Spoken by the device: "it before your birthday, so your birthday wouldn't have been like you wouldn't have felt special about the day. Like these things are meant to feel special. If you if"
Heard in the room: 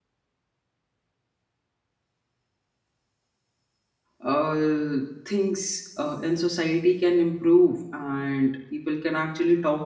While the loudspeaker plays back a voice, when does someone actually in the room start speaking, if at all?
4.2 s

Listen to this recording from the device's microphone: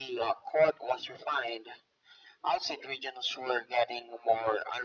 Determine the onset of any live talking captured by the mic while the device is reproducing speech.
none

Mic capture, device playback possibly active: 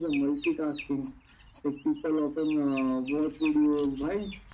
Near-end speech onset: none

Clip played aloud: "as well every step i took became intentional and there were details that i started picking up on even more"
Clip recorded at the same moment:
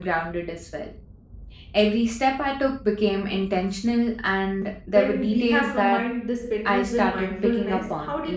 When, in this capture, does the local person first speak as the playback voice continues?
4.9 s

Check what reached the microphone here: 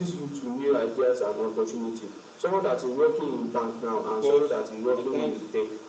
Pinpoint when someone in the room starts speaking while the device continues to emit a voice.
4.1 s

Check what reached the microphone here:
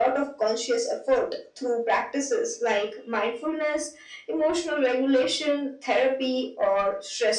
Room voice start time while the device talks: none

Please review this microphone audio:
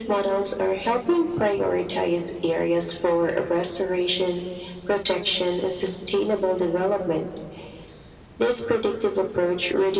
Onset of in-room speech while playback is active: none

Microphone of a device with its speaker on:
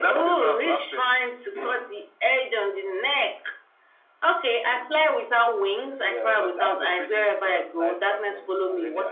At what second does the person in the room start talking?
none

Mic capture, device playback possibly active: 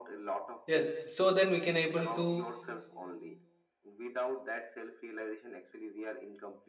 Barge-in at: 0.7 s

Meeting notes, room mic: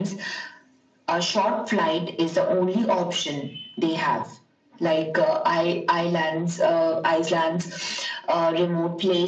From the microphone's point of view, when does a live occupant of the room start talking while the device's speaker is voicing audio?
none

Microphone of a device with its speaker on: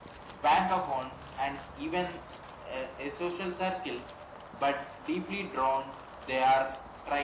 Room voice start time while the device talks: none

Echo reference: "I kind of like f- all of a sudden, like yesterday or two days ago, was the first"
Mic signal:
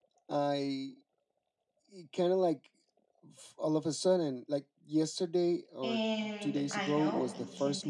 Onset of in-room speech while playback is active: 5.8 s

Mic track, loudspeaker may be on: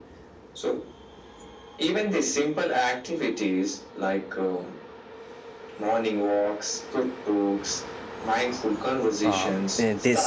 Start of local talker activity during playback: 9.2 s

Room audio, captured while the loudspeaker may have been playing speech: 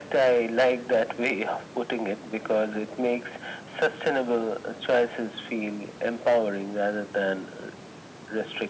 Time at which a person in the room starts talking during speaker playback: none

